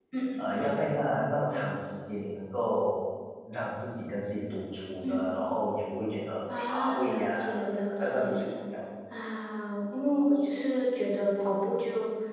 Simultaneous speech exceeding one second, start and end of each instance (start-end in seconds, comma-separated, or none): 6.5-8.4